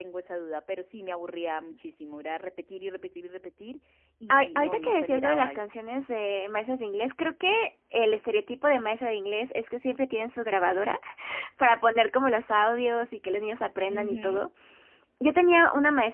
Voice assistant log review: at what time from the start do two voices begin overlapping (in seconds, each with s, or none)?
4.3 s